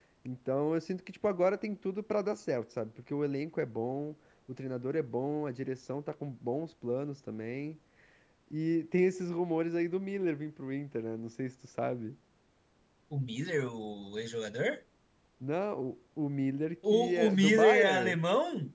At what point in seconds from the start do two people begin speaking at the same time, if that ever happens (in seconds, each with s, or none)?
16.8 s